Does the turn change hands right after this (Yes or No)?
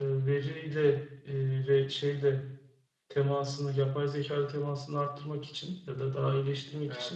No